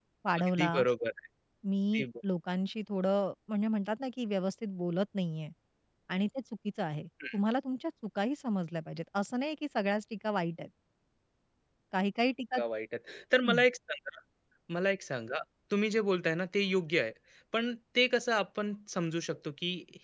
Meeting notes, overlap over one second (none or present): none